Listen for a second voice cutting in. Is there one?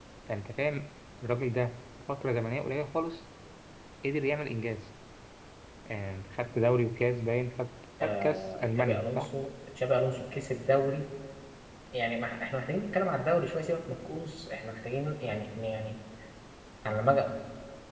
Yes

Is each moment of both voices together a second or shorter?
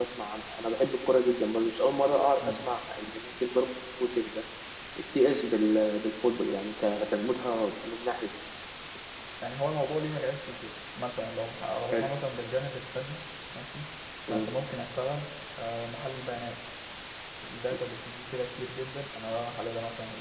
Yes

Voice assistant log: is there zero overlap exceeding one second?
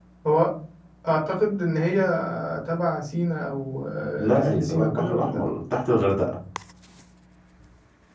No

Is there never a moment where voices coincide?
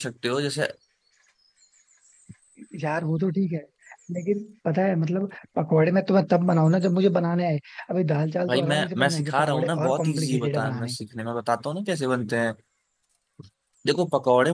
No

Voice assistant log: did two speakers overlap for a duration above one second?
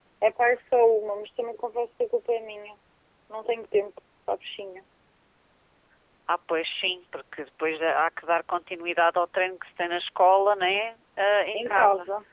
No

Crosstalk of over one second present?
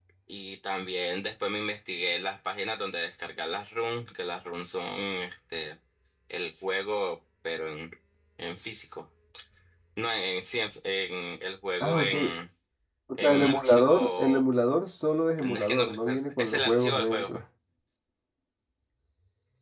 Yes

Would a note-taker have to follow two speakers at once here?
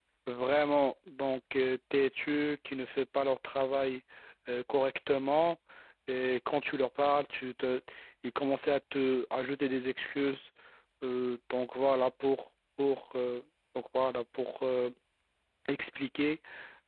No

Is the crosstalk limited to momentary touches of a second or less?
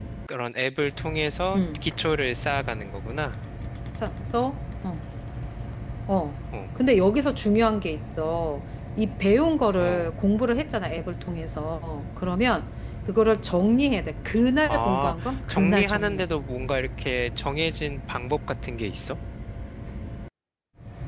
No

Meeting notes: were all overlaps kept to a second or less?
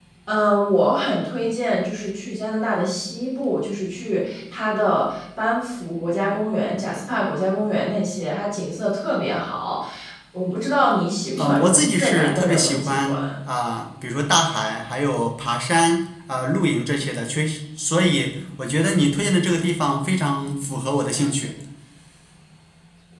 No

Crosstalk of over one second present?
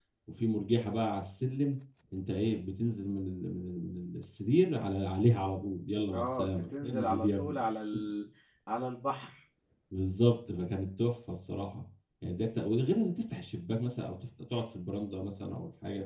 Yes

